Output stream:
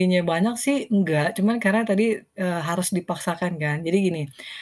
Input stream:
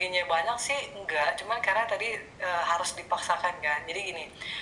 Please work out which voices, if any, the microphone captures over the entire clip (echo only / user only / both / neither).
echo only